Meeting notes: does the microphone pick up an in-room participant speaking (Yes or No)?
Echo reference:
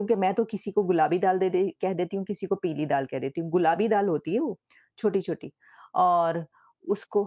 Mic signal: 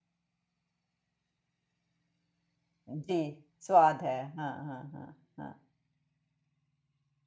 Yes